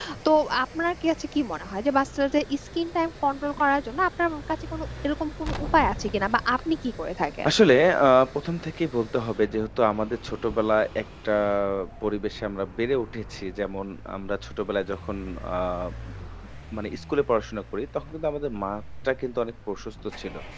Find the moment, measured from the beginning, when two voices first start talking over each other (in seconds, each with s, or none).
none